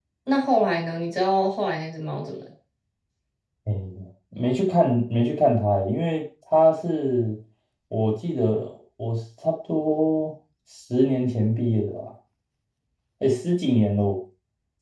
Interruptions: none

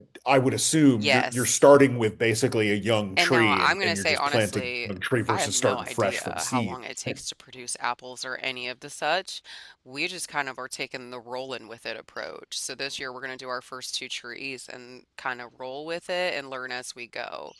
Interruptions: present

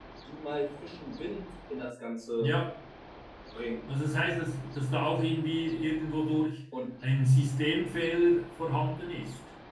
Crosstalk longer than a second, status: none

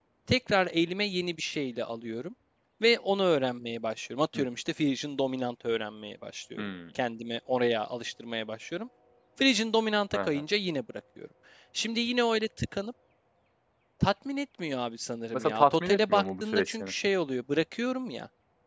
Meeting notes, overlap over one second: present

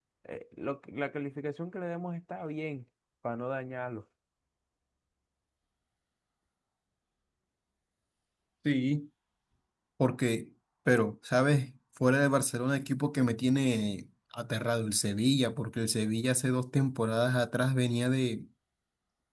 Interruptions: none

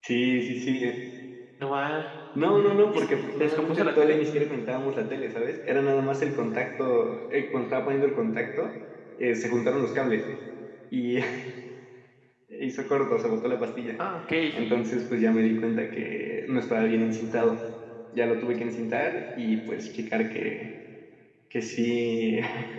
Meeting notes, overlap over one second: present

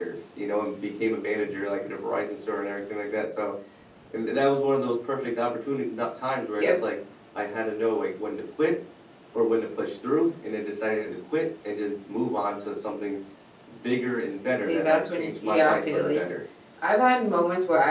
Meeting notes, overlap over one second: present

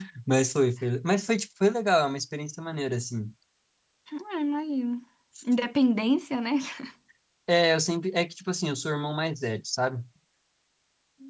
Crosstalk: none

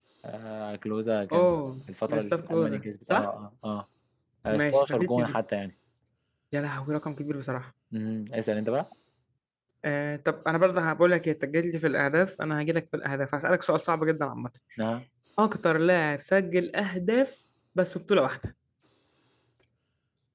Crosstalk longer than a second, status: present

